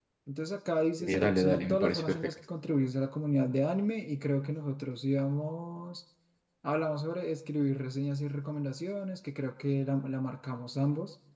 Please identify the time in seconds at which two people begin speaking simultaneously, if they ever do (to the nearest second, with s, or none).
1 s